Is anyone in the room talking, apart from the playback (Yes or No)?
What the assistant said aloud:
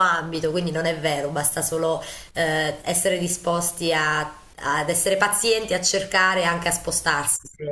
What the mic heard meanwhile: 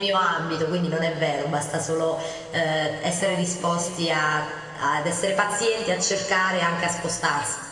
Yes